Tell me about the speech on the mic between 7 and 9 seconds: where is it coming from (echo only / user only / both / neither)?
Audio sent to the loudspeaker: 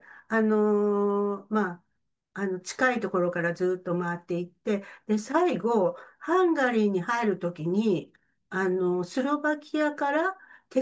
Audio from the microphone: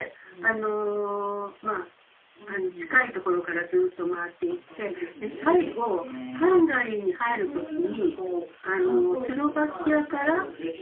both